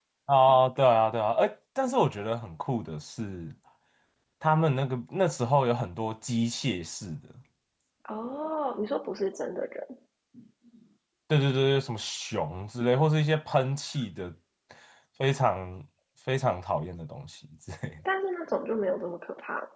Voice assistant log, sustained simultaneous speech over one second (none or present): none